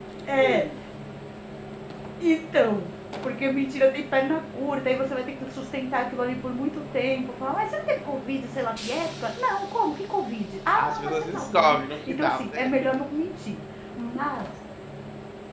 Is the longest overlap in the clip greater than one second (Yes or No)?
Yes